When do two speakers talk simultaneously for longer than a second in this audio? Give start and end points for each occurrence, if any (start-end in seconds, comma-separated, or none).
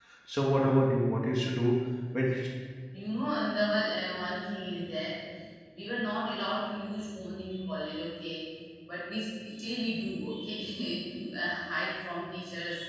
none